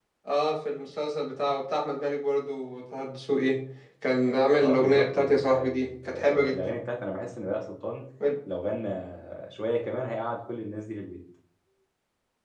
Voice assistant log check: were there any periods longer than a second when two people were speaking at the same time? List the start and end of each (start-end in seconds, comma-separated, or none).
4.6-6.7